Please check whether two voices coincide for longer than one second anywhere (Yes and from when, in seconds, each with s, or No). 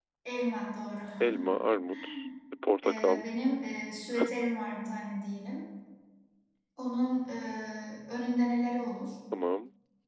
No